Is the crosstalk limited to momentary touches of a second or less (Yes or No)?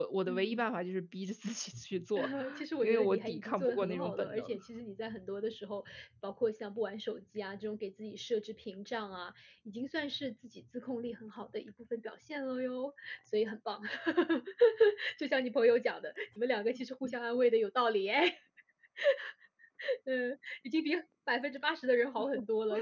No